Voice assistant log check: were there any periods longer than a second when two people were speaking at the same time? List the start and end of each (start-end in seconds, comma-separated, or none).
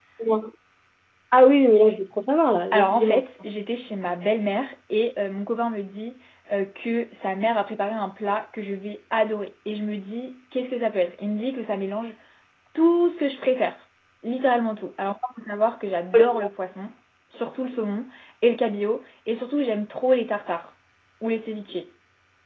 none